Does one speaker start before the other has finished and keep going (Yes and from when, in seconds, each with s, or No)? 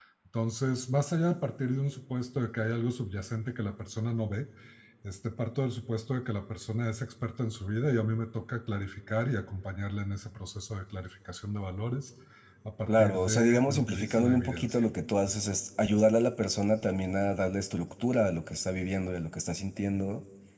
Yes, from 12.9 s